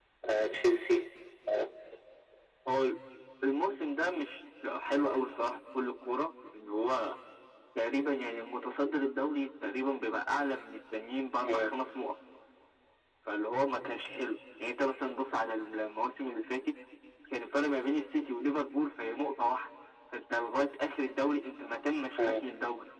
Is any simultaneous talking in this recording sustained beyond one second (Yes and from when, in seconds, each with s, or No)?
No